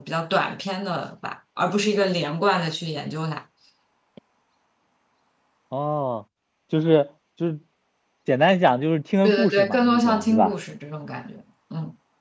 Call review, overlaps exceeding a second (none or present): present